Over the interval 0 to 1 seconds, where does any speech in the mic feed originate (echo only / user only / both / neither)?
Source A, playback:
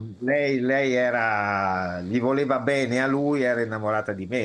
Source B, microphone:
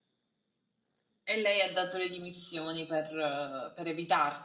neither